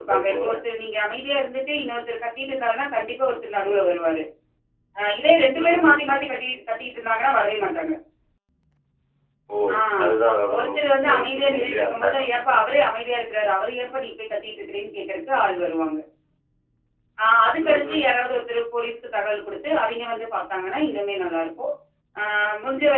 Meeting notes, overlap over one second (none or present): present